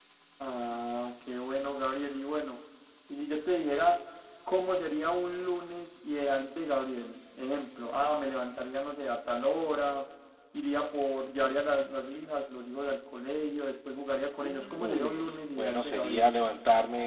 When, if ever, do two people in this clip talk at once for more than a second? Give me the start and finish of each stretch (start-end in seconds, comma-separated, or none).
14.4-16.3